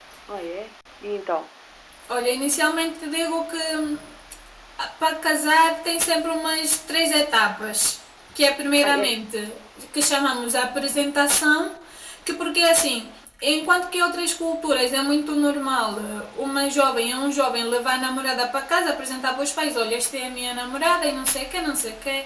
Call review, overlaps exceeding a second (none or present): none